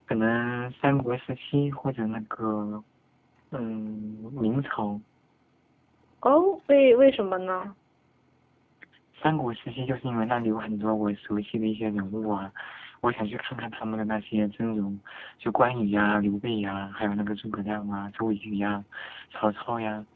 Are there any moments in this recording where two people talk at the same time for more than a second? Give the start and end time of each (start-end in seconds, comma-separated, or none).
none